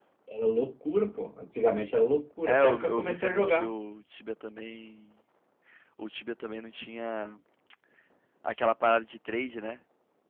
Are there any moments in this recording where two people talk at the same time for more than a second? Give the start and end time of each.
2.4-3.7

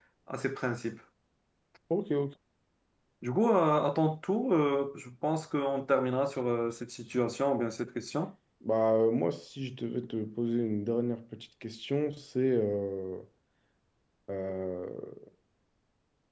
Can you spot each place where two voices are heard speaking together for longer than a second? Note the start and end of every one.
none

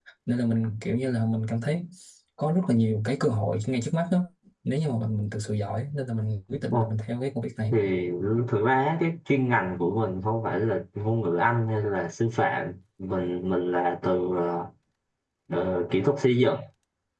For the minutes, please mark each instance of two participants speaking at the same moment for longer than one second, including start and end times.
none

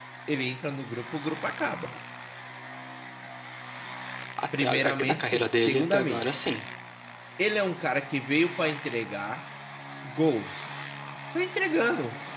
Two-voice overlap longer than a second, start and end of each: 4.6-6.3

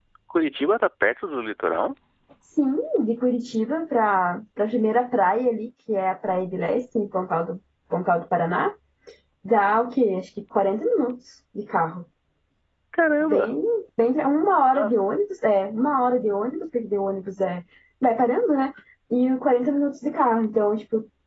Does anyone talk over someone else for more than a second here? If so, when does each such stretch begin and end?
none

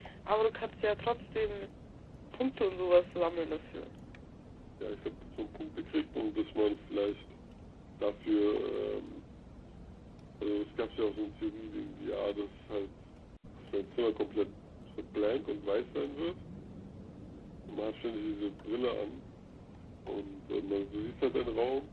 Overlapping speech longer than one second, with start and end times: none

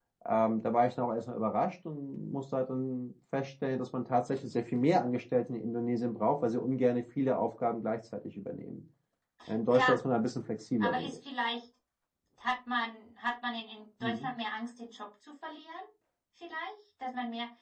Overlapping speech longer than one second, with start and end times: none

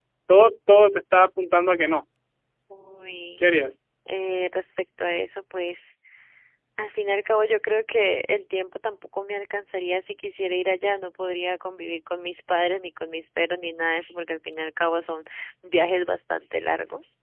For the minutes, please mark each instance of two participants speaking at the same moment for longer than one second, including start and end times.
none

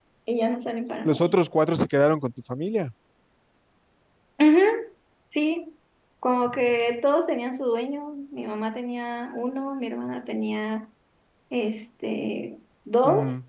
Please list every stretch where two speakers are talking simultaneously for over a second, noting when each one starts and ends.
none

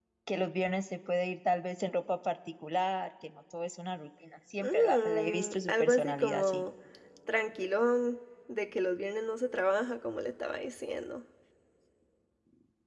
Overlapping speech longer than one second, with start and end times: 4.6-6.6

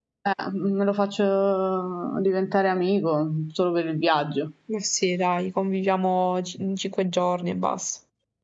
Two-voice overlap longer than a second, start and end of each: none

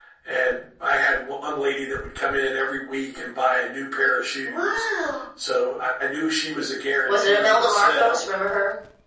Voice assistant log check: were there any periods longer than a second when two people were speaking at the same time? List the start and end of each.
7.0-8.3

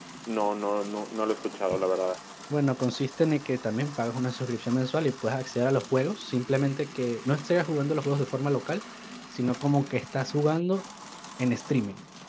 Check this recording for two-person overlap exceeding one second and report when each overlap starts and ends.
none

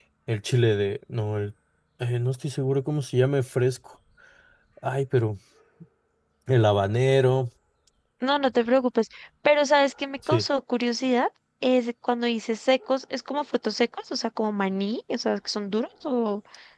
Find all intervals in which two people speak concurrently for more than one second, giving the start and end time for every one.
none

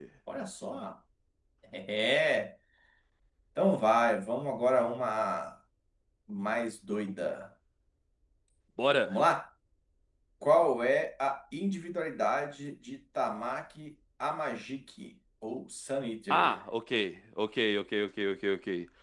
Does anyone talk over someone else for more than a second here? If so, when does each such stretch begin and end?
none

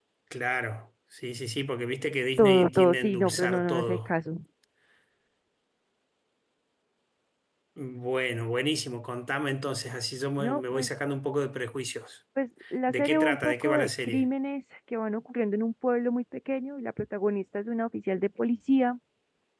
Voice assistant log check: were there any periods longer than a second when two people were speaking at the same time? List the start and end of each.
2.4-4.1, 12.9-14.3

